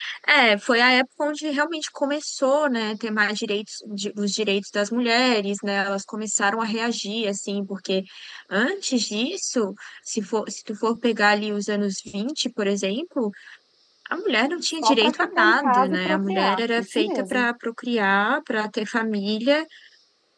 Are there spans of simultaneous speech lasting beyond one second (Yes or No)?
Yes